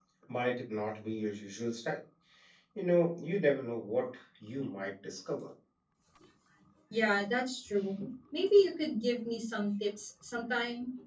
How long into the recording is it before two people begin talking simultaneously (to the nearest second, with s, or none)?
none